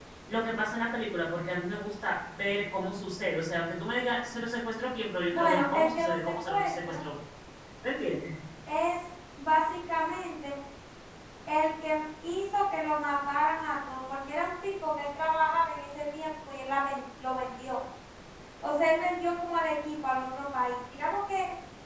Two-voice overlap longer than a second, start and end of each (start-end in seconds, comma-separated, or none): 5.3-7.0